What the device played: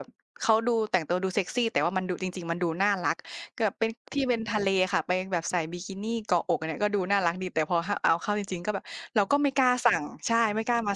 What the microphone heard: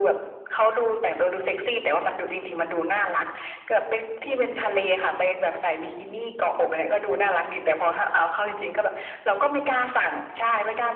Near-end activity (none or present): none